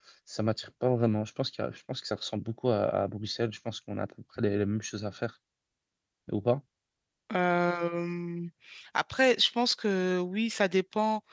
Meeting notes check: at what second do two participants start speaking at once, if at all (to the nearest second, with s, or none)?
none